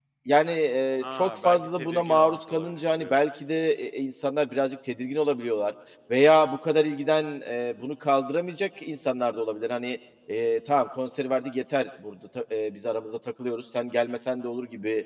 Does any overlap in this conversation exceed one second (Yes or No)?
Yes